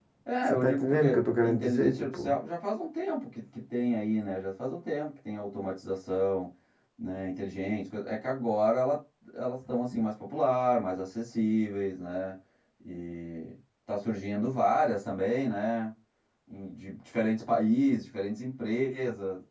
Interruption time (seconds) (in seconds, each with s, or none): 0.5 s